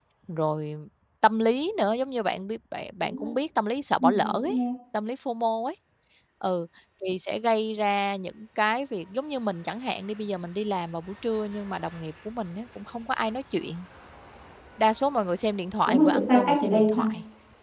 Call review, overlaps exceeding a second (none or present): present